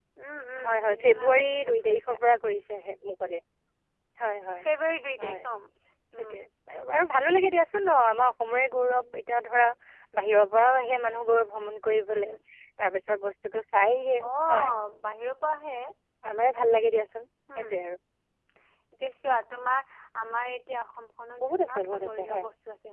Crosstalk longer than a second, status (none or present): present